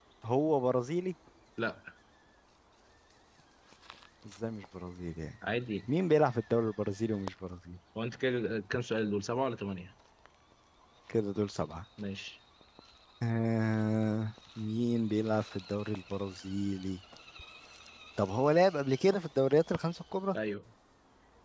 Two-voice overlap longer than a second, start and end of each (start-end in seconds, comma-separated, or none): none